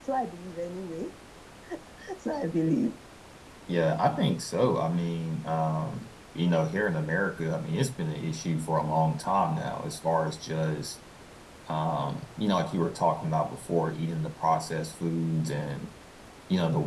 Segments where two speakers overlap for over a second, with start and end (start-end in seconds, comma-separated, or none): none